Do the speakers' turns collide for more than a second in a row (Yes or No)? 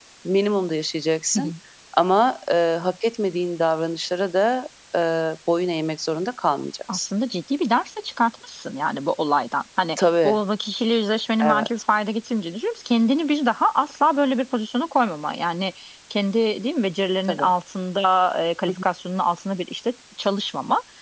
No